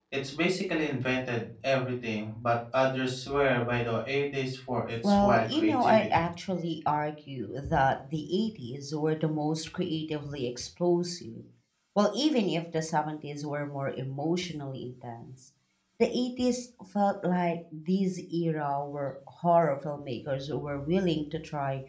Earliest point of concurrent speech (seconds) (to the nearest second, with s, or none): 5 s